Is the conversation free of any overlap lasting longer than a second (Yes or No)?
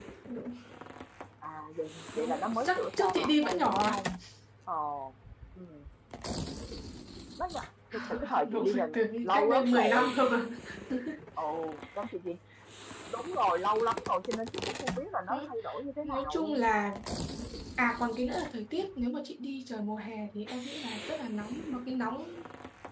No